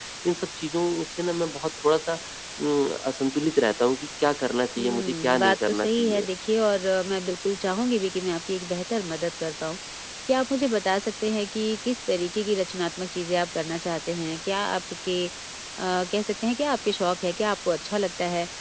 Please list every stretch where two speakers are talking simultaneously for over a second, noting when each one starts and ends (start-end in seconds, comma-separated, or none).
4.8-6.3